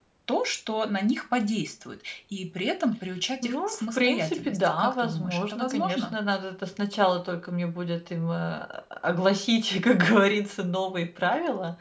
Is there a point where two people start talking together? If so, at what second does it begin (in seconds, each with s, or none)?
3.4 s